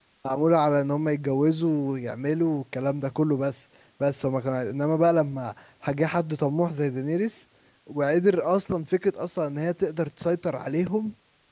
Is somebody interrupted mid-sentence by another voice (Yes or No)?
No